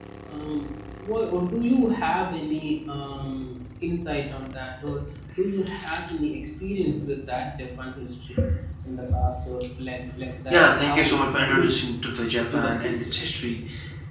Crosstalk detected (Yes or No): Yes